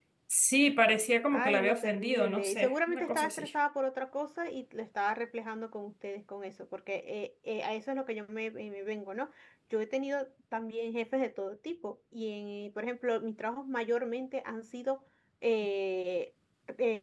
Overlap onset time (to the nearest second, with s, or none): 1 s